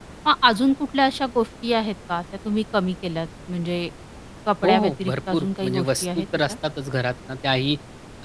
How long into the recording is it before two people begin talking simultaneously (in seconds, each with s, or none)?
4.6 s